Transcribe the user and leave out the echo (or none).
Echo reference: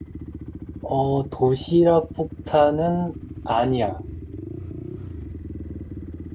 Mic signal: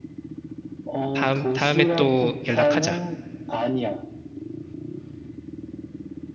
다음, 다음에 또 연락하자.